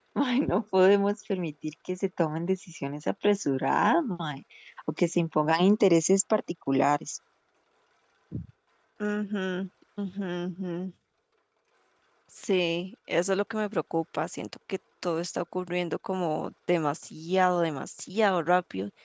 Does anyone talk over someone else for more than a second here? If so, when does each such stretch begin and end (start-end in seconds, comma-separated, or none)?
none